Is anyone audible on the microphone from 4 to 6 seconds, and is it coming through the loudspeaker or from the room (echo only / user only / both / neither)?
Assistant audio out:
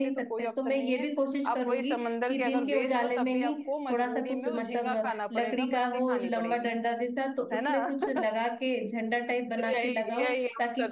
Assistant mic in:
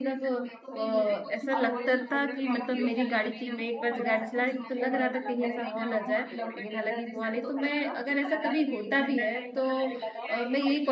both